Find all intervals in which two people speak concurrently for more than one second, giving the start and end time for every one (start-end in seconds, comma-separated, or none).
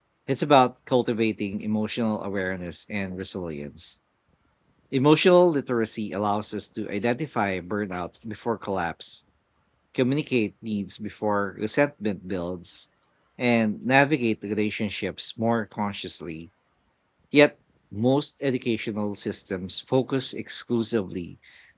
none